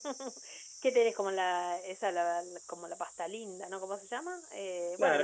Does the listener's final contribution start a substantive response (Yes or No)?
Yes